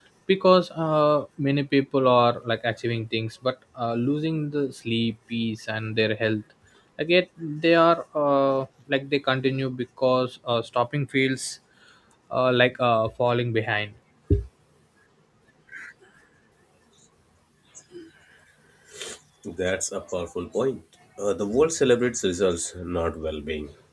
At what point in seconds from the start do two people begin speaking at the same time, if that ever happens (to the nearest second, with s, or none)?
none